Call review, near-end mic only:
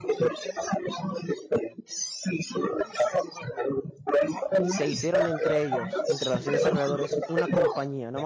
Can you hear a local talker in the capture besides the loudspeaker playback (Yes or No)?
Yes